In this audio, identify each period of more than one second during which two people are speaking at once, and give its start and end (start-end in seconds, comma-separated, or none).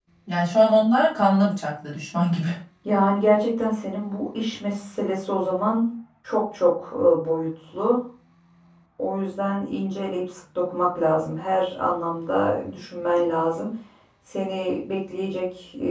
none